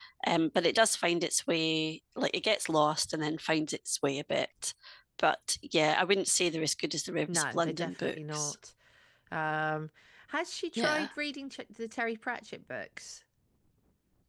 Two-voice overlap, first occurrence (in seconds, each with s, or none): 7.3 s